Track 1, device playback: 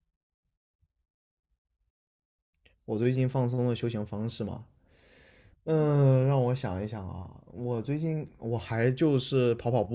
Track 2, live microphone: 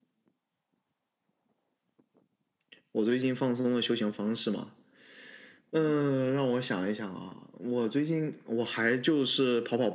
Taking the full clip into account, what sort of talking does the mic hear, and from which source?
echo only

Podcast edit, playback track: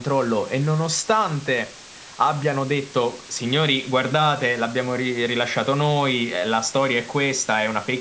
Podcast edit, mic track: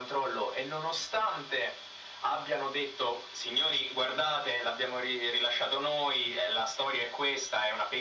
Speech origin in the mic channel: echo only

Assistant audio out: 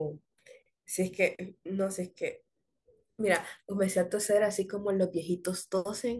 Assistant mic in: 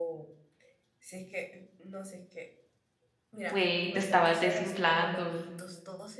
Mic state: both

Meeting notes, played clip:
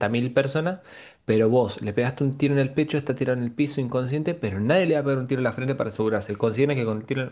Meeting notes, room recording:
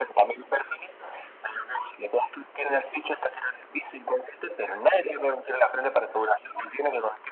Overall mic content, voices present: echo only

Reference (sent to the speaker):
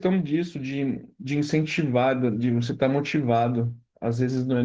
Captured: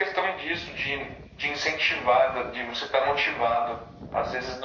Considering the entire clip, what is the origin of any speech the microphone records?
echo only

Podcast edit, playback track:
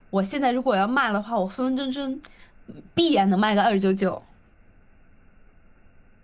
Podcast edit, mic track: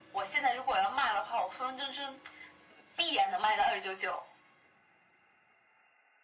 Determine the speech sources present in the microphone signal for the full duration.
echo only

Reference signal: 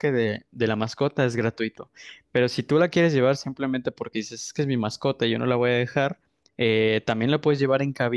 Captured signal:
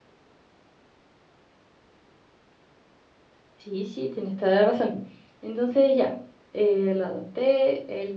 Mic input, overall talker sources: user only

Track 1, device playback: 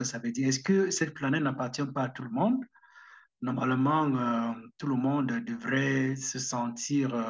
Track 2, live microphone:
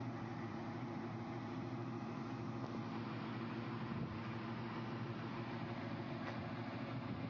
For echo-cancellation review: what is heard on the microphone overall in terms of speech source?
neither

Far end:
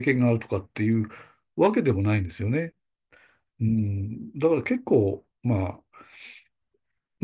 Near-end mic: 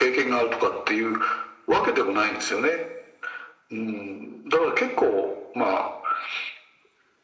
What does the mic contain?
echo only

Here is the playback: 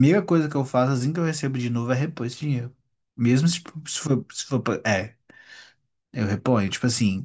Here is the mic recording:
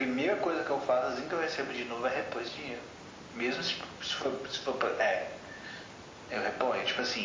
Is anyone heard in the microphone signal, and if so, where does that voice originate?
echo only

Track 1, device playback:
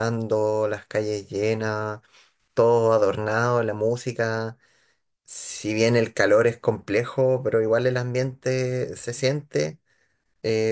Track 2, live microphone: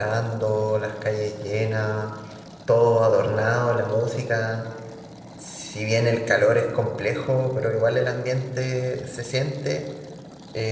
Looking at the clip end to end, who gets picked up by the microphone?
echo only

